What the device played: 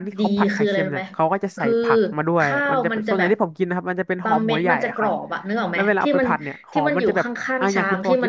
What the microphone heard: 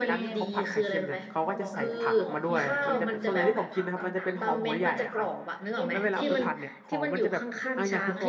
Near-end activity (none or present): present